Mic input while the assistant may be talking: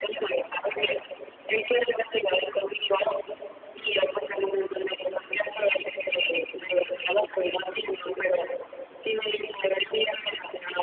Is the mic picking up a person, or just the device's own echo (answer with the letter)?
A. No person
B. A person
A